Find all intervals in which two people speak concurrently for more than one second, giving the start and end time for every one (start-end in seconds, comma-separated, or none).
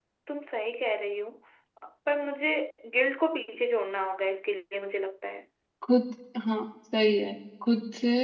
none